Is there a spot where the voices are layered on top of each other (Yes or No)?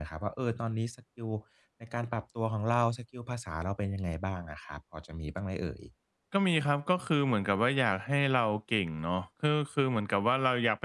No